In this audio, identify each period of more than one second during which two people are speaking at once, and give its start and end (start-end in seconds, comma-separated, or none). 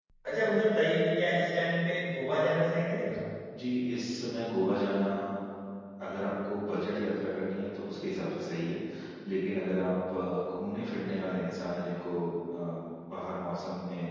none